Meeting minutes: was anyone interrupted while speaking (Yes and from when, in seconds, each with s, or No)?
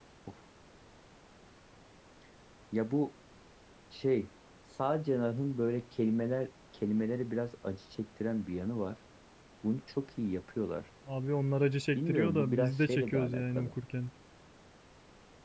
Yes, from 11.9 s